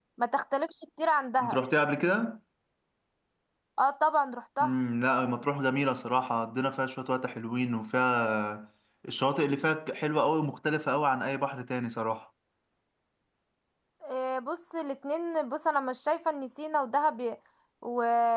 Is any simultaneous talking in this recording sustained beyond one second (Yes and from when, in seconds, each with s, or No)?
No